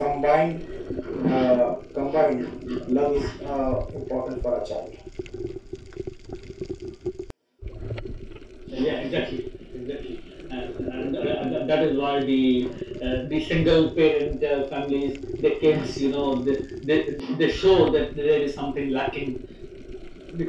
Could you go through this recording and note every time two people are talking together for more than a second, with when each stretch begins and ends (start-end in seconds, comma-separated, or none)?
none